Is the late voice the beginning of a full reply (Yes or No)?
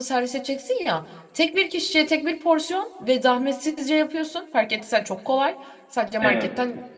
No